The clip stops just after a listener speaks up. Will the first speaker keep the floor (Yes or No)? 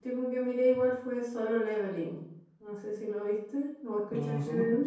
No